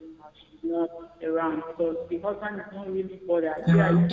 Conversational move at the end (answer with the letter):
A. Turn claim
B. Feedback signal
B